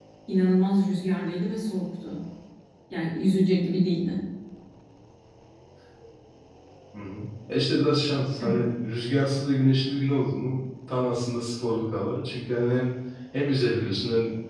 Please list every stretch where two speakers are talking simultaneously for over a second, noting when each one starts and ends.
none

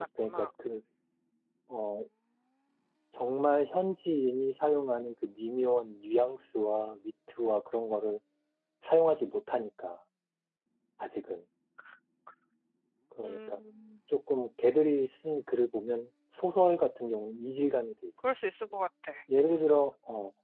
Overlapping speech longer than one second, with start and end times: none

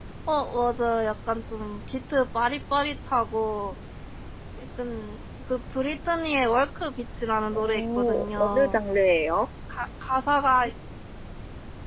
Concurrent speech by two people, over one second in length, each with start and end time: 7.5-8.8

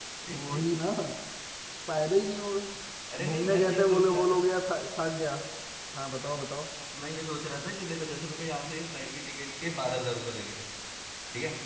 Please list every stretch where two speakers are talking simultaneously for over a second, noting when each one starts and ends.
3.2-4.4

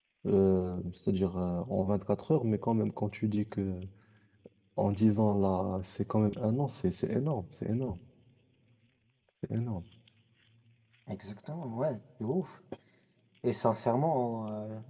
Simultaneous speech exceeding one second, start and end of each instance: none

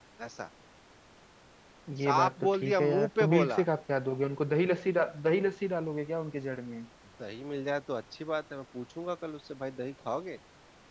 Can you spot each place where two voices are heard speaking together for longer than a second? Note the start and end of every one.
2.0-3.6

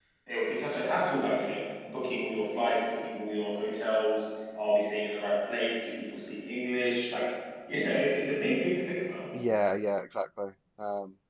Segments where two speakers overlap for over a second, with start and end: none

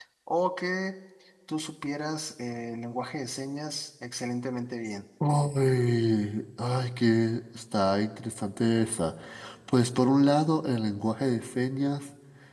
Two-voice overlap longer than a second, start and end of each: none

